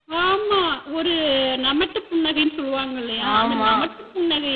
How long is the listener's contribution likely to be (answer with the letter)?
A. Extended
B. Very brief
B